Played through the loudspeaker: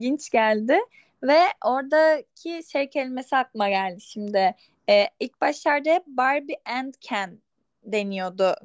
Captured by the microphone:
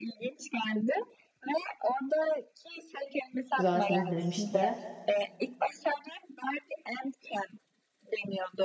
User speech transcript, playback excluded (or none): güzelsiniz demişti.